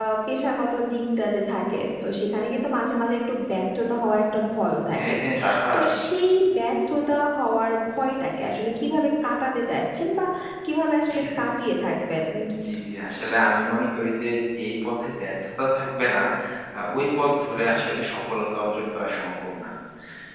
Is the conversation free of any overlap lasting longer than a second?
Yes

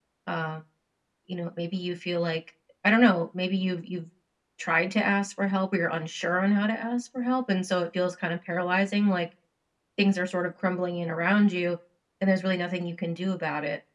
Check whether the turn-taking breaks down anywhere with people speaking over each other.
No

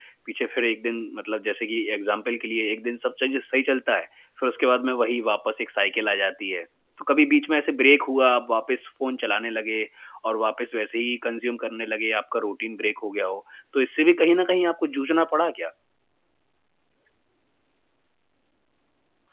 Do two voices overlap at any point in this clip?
No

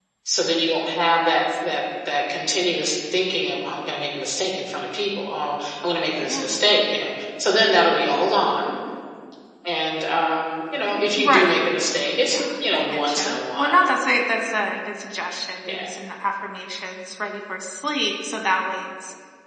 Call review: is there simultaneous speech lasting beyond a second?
Yes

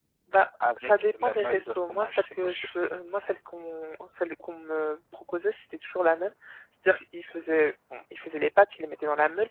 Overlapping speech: Yes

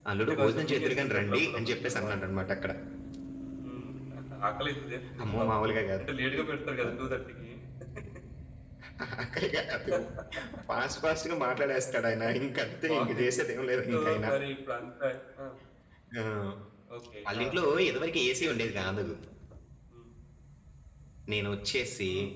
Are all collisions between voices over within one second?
No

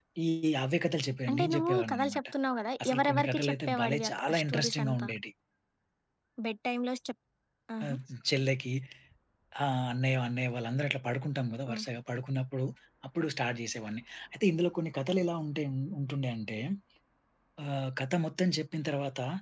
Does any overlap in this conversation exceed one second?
Yes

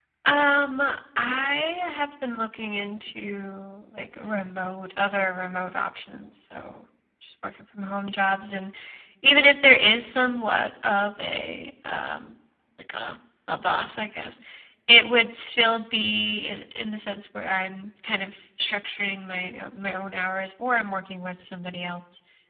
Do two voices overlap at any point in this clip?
No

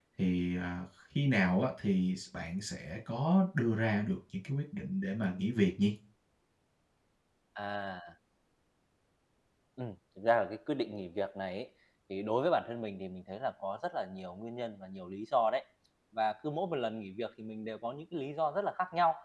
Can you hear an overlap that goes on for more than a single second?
No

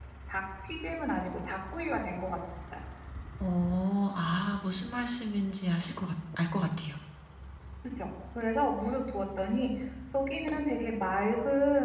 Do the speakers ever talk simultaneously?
No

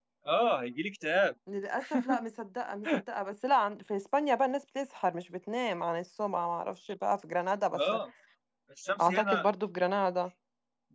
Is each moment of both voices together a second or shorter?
Yes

